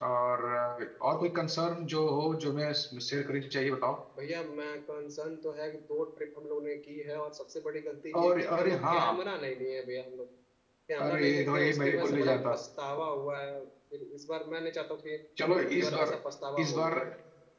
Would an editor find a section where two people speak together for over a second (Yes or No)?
Yes